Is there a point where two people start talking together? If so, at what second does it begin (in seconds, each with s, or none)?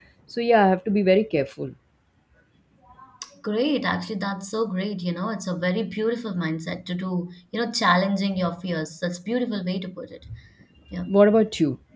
none